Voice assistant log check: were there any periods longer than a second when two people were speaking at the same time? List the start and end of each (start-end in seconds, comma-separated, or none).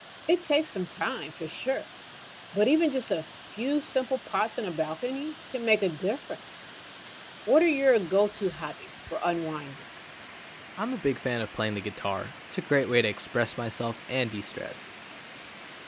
none